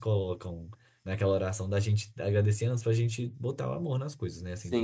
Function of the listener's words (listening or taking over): taking over